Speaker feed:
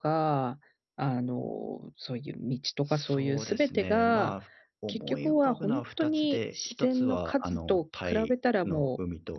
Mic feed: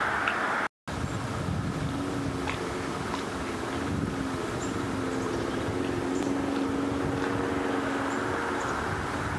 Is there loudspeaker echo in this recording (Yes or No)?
No